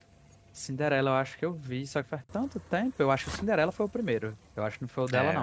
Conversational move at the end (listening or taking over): taking over